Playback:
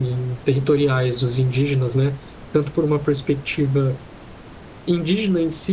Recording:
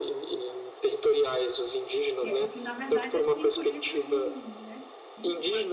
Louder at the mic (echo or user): echo